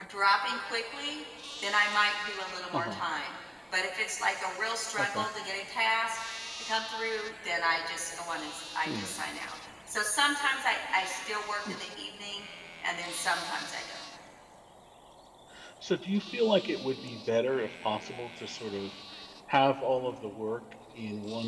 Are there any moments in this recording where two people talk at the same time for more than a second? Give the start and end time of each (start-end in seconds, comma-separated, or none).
none